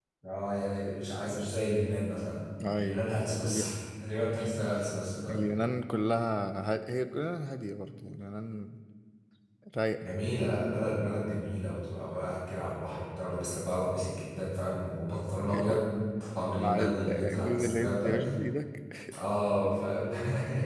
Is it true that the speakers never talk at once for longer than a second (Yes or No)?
No